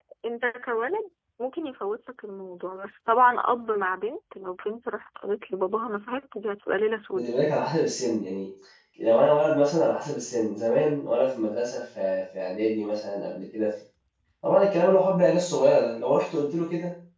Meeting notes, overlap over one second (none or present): none